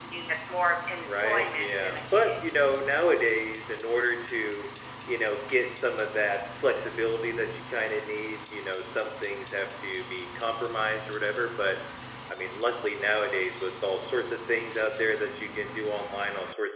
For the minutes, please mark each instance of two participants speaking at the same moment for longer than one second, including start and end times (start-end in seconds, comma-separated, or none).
1.1-2.3